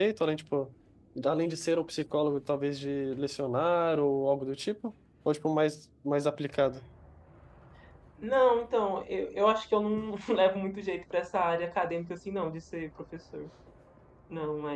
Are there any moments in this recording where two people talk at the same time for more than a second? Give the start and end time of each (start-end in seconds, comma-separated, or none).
none